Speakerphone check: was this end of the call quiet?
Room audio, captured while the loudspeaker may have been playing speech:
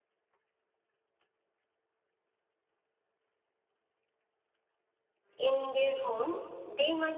No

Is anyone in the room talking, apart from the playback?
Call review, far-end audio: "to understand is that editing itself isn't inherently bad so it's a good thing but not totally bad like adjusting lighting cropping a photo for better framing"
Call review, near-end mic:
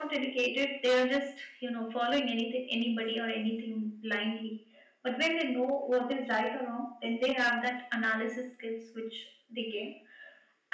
Yes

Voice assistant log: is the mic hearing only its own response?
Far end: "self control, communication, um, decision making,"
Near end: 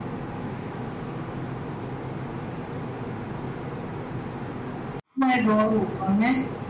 No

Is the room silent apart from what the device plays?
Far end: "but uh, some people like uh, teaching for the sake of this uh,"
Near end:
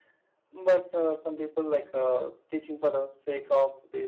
Yes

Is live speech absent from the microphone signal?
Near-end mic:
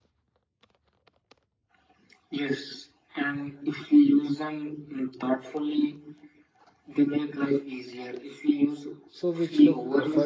No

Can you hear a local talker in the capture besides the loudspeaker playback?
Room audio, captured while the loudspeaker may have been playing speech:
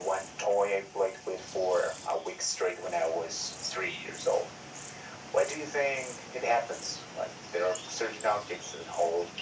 No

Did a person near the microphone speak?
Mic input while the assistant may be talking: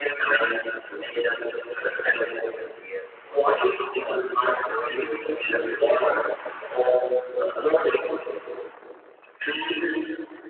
Yes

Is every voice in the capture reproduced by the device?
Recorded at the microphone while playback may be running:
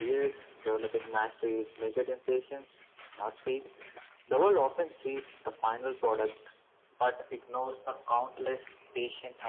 Yes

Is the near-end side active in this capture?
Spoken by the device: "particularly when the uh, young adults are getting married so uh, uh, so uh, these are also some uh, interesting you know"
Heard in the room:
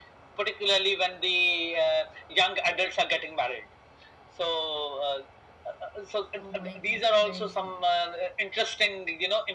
Yes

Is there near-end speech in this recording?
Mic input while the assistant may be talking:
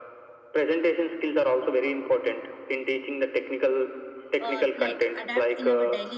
Yes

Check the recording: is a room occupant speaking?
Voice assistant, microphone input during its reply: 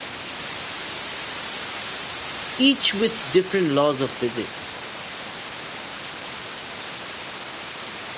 Yes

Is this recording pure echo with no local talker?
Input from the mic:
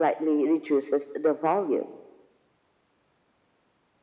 Yes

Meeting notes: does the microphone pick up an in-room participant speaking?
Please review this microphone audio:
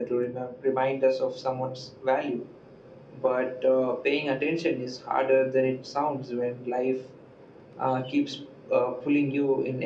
No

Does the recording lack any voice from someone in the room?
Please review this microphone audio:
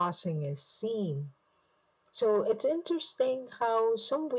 Yes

